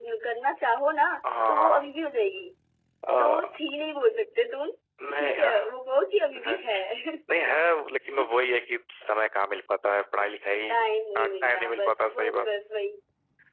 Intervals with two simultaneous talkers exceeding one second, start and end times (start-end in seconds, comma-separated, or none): 11.2-12.4